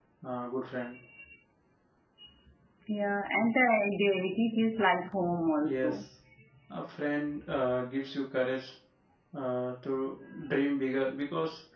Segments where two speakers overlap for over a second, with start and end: none

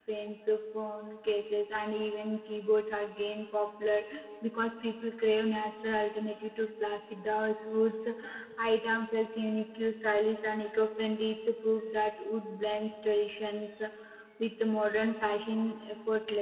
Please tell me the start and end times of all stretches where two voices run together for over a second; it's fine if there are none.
none

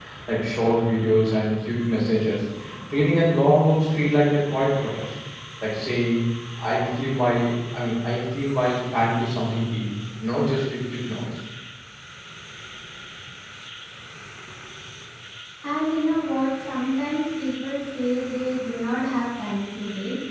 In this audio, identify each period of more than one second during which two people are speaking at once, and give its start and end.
none

